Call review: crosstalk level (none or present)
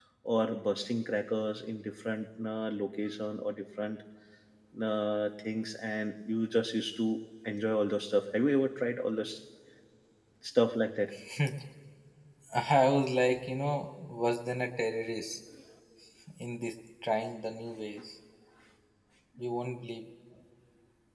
none